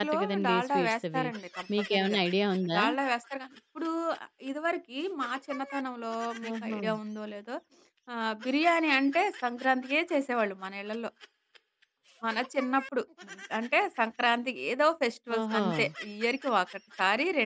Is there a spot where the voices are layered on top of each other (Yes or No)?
Yes